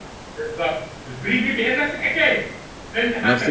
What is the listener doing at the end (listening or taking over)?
taking over